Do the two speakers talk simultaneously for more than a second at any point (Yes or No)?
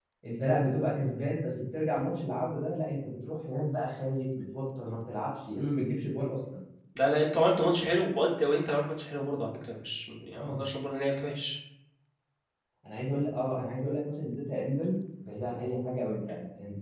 No